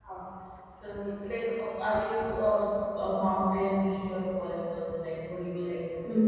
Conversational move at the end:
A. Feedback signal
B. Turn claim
B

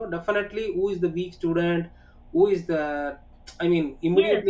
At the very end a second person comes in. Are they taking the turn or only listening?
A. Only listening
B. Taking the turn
B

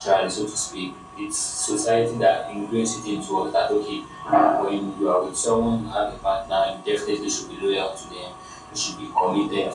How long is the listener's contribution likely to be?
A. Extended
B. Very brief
B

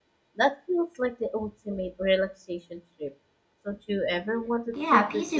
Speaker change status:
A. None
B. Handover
B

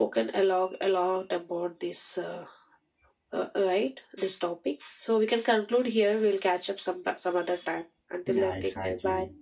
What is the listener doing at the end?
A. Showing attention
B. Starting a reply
B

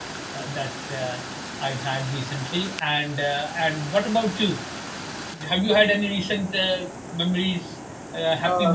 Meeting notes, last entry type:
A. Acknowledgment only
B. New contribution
B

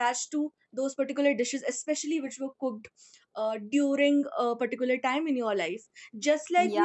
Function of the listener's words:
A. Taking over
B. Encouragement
A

